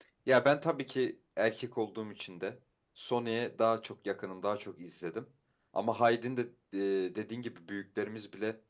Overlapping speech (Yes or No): No